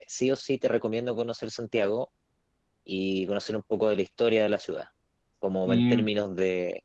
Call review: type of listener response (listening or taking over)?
listening